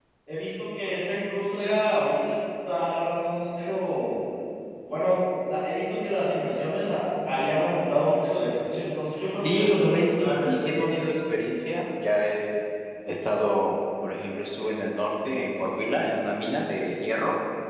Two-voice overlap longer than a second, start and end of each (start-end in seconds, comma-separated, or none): 9.5-10.9